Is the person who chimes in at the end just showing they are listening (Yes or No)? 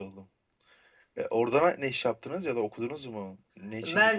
No